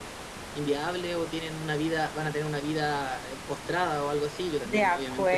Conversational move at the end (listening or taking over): taking over